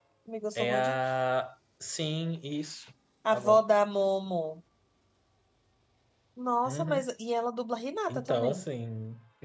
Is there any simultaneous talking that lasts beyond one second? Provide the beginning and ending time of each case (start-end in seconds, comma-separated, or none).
none